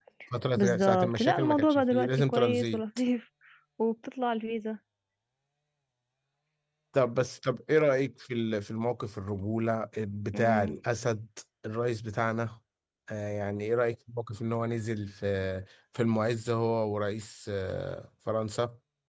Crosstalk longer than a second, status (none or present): present